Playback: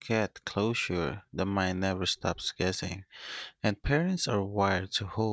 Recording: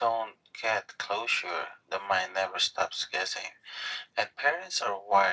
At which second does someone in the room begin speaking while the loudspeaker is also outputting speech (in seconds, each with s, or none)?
none